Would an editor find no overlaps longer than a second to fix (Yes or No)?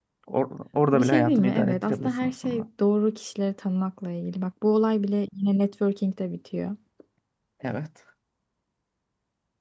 No